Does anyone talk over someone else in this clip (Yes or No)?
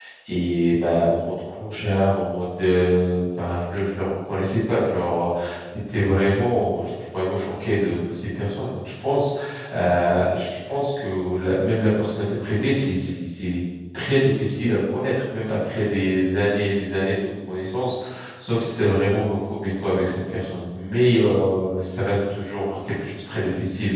No